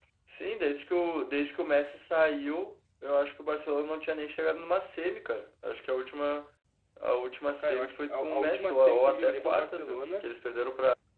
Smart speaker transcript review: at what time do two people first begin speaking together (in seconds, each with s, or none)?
7.6 s